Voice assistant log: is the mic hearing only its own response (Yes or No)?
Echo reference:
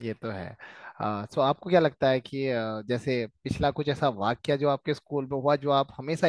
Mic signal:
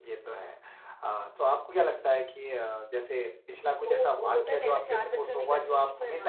No